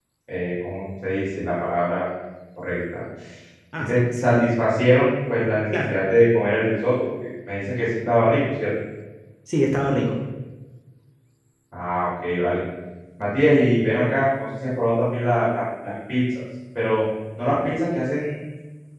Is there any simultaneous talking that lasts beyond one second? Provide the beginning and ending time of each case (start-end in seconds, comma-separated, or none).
3.8-5.1